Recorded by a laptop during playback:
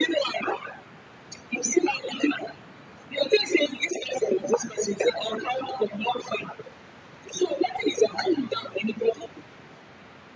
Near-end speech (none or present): none